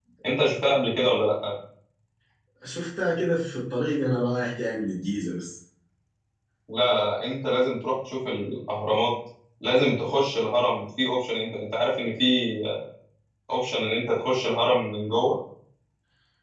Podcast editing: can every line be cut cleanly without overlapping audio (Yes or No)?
Yes